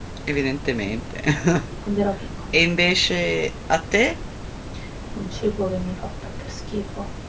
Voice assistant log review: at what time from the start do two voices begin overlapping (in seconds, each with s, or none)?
none